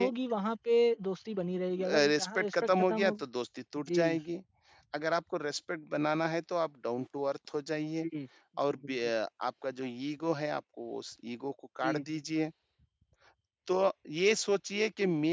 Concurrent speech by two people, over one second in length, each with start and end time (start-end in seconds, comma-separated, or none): 1.8-3.1